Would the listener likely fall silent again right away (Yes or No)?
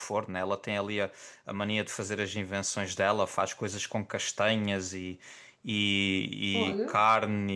Yes